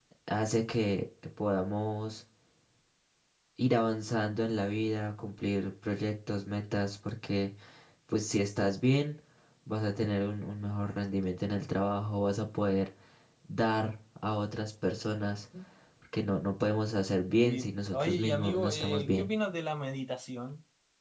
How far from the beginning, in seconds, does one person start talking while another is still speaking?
17.4 s

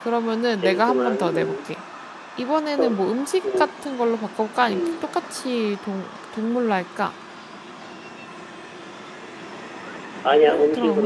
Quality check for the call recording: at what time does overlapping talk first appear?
0.6 s

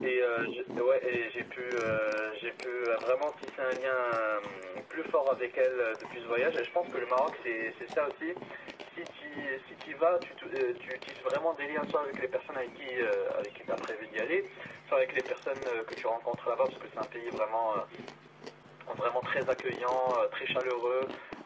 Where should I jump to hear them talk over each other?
none

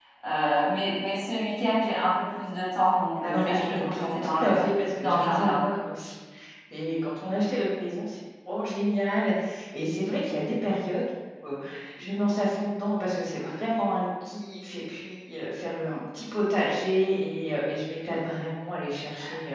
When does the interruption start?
3.2 s

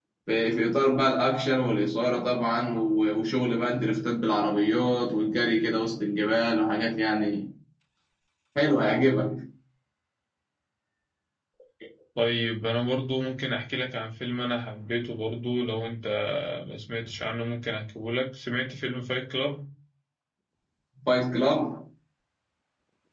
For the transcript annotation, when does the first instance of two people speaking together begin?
none

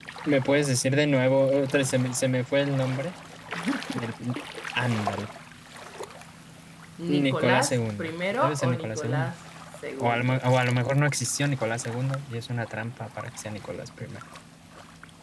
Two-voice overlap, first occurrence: 7.1 s

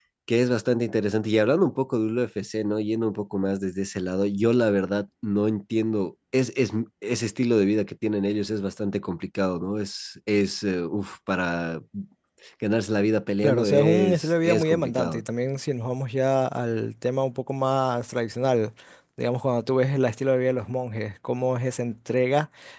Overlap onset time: 13.4 s

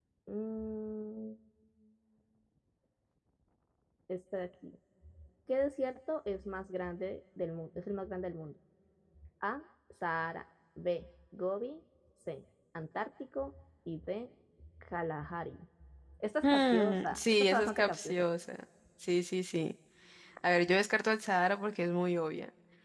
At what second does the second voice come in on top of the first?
16.4 s

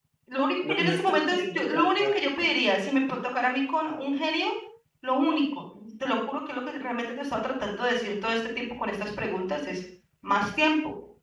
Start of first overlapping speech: 0.7 s

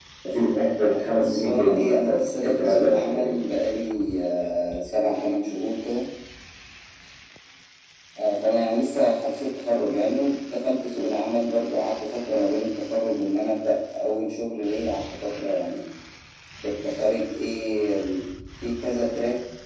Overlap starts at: 0.8 s

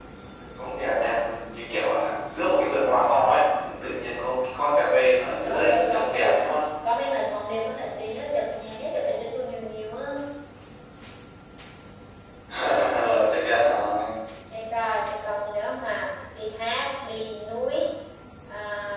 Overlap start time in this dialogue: 5.4 s

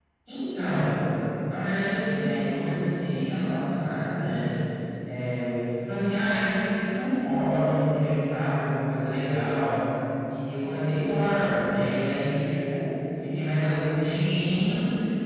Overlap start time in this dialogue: none

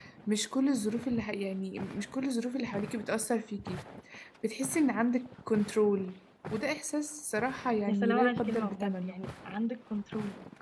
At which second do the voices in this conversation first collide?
7.9 s

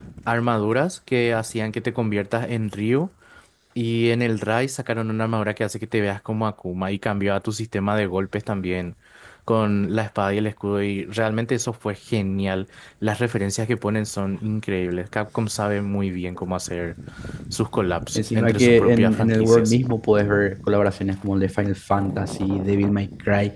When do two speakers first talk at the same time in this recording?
18.1 s

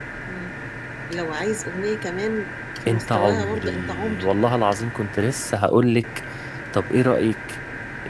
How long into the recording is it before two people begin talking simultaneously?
2.9 s

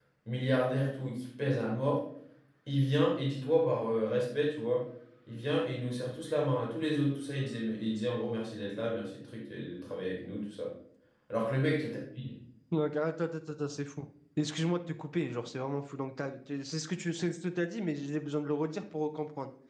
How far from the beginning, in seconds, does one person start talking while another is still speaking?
none

